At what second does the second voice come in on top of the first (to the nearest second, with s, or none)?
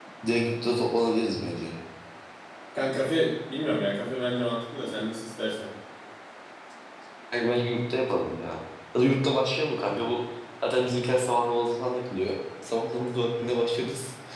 none